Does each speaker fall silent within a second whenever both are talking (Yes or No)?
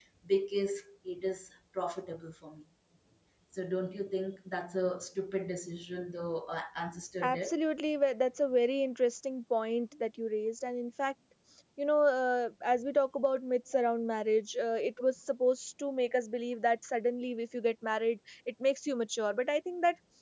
Yes